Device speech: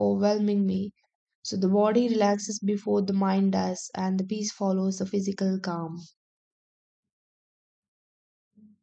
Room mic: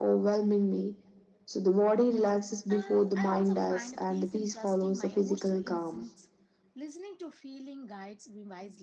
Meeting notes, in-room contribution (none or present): present